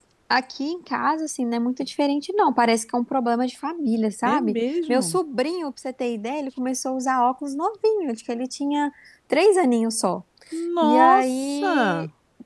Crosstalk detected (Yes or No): Yes